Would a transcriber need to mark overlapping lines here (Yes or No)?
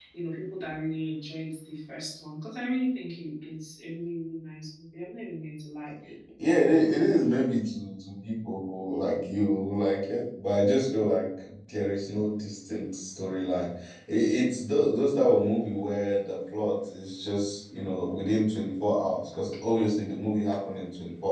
No